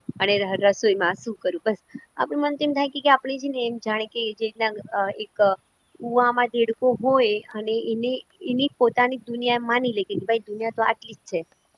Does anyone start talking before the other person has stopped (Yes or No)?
No